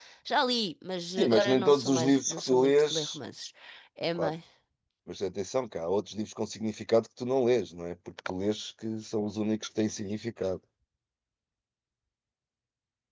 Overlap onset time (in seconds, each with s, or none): 1.2 s